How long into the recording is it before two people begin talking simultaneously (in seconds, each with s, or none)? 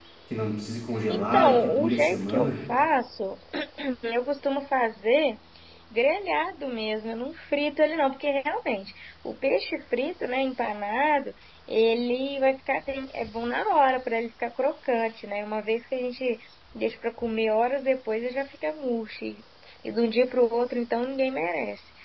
1.1 s